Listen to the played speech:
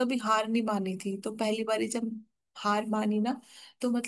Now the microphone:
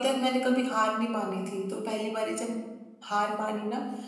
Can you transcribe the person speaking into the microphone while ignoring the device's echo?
none

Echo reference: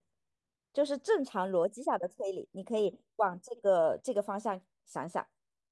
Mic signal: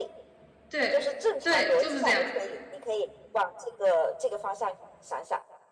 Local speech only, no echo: 对对，就是这样

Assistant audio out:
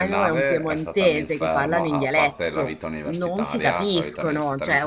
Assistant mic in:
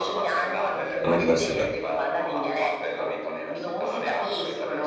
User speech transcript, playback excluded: all'università.

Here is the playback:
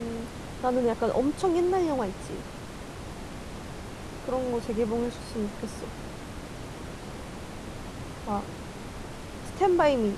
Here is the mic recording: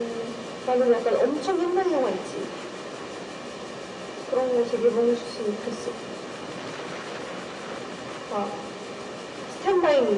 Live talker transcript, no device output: none

